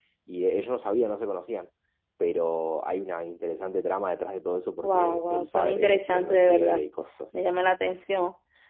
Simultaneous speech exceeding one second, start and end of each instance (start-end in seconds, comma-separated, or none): 4.8-6.9